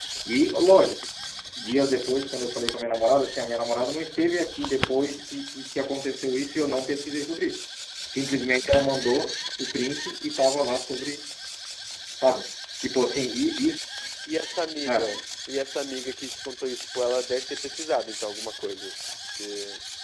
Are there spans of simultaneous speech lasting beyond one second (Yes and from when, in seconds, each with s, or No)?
No